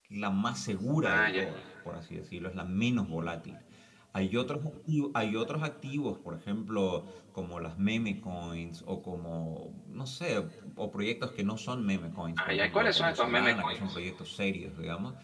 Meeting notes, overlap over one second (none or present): present